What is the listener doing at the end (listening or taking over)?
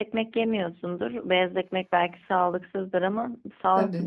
listening